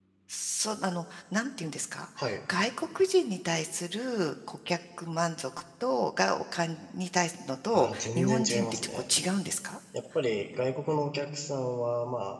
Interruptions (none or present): present